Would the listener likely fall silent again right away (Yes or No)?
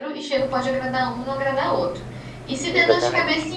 Yes